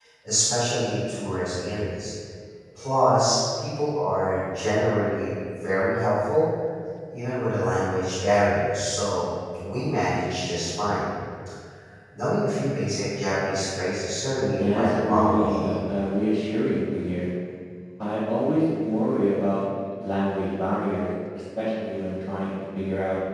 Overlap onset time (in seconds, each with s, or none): 14.4 s